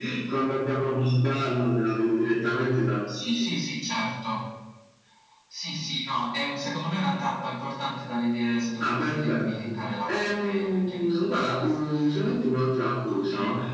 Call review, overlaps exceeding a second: present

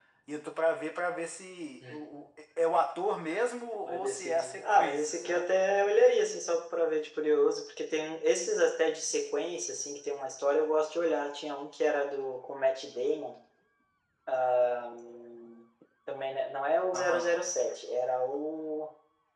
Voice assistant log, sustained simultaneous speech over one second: present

